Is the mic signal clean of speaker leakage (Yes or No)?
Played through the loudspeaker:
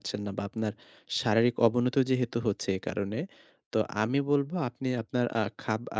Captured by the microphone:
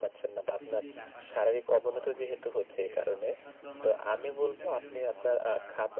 No